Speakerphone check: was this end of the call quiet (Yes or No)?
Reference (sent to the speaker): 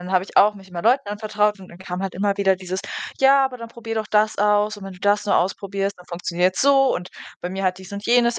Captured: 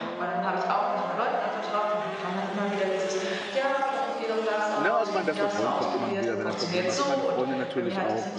No